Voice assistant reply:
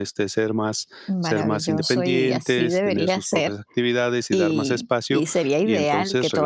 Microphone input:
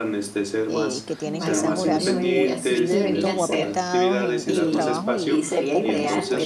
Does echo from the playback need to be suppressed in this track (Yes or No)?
Yes